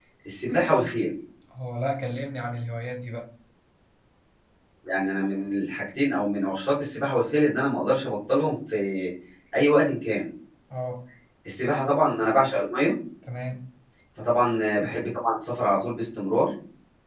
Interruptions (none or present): none